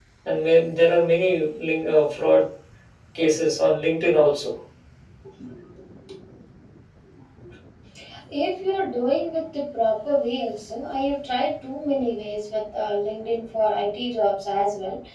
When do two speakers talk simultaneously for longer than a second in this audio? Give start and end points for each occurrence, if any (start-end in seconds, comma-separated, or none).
none